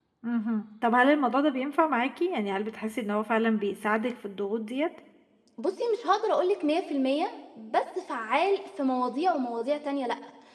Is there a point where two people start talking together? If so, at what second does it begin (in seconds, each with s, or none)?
none